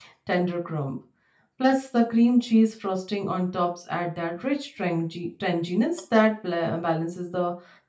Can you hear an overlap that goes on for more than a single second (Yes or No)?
No